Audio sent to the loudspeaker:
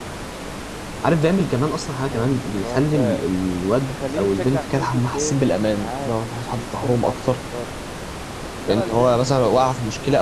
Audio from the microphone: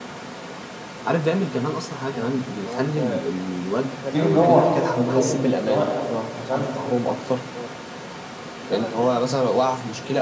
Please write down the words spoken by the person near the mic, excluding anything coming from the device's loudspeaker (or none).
تيجي مروح طب يلا اللي هو انت فاهم